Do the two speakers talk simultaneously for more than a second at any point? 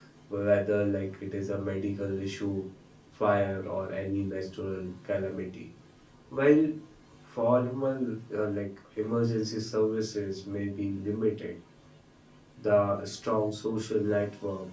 No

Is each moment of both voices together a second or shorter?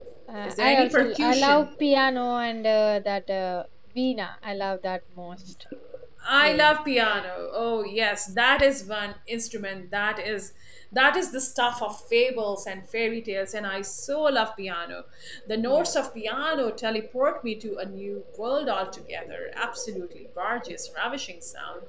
No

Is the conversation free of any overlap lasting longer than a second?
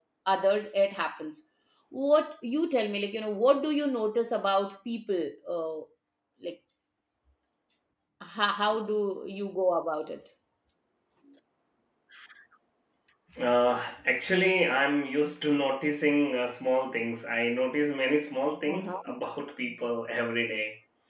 Yes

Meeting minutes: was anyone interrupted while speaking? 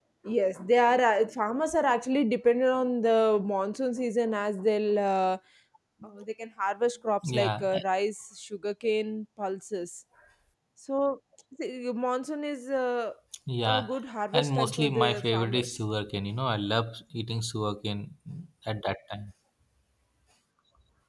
Yes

